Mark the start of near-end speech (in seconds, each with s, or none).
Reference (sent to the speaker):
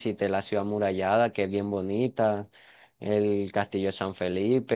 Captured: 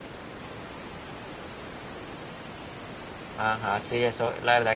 3.4 s